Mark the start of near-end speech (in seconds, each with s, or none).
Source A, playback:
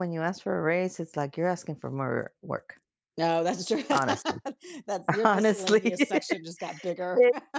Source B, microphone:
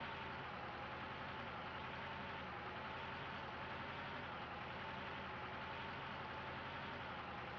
none